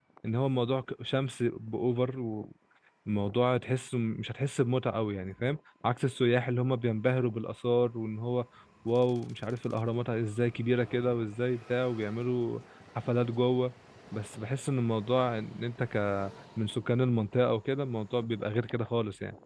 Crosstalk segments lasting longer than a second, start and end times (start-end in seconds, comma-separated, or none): none